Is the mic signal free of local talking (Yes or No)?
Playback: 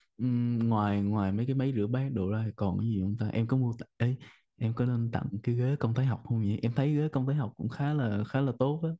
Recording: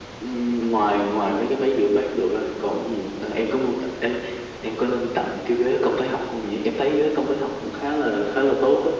Yes